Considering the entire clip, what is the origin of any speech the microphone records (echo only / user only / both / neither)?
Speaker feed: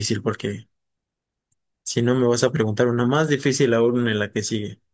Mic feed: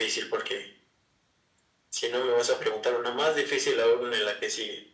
echo only